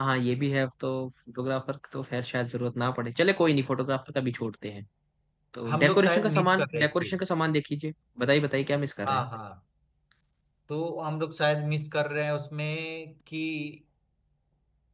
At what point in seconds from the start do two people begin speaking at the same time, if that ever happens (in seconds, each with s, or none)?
5.7 s